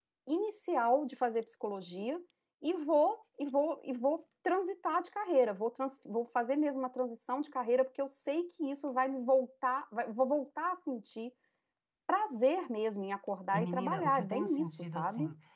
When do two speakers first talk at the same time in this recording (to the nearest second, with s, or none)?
14 s